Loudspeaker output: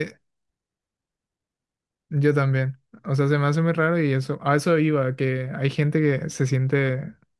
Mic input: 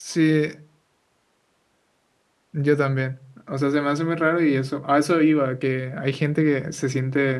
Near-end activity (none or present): none